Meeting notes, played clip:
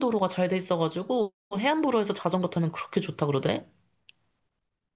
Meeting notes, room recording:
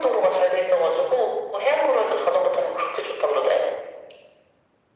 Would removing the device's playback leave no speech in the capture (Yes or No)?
Yes